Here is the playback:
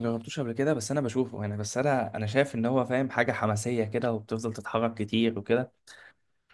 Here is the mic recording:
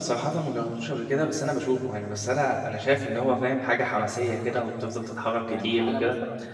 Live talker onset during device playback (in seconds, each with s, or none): 5.5 s